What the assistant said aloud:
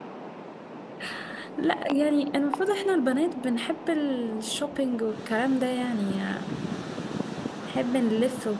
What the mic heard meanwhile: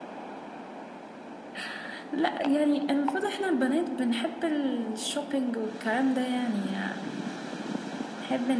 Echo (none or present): present